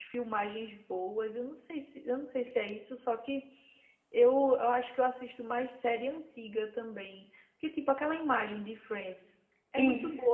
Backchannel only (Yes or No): Yes